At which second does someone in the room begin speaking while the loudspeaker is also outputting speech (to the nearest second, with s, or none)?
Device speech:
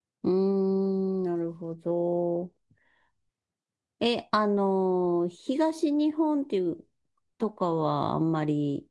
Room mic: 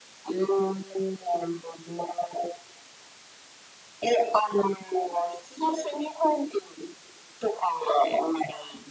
none